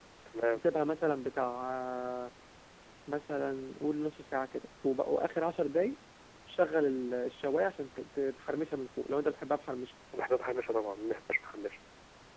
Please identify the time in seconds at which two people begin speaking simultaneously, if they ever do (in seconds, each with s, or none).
none